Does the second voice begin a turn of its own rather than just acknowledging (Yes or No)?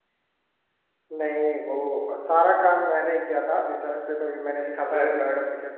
Yes